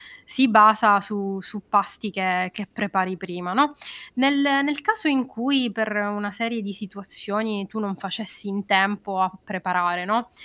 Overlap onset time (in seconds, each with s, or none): none